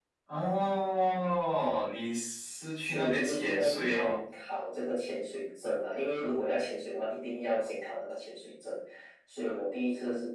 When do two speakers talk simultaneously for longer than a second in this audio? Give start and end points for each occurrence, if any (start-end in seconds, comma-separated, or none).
2.8-4.2